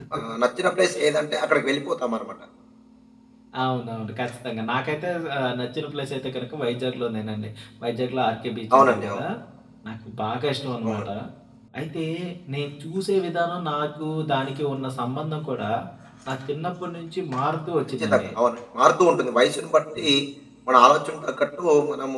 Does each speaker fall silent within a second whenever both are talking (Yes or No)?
Yes